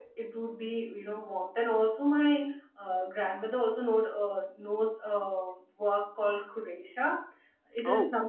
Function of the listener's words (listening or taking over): listening